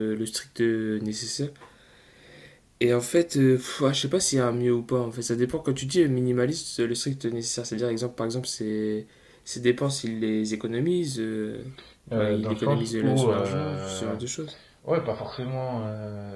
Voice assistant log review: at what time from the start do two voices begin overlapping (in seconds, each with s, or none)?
12.2 s